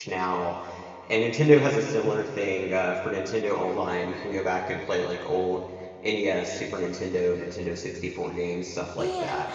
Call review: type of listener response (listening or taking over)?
taking over